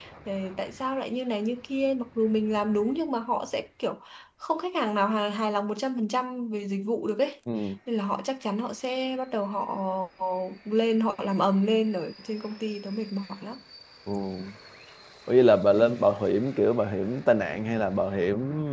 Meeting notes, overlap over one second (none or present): none